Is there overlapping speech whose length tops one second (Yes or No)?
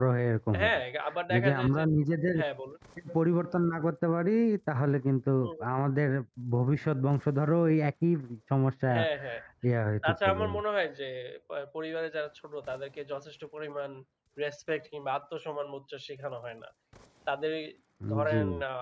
No